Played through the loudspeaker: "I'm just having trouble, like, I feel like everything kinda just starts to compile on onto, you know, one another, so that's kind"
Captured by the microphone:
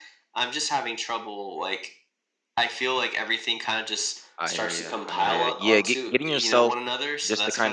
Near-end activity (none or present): present